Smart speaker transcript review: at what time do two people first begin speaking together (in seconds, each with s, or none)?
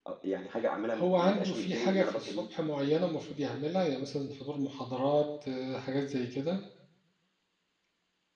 0.9 s